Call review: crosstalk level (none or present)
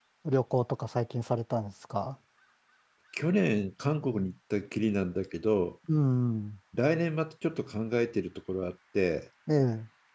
none